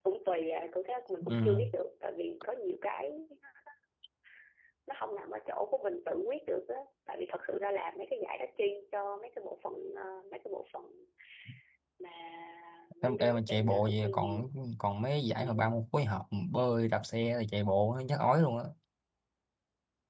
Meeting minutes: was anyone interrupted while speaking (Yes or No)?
Yes